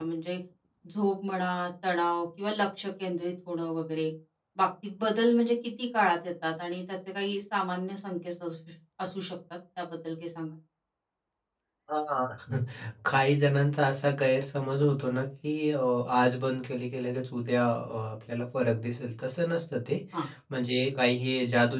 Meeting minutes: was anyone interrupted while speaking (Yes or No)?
No